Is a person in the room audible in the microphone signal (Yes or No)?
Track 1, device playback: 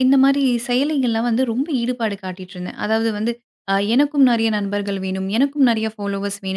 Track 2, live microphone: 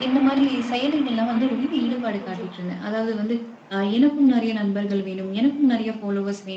Yes